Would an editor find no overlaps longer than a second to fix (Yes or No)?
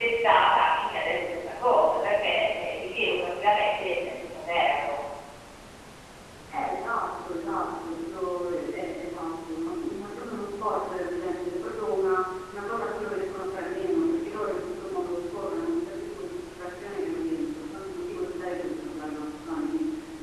Yes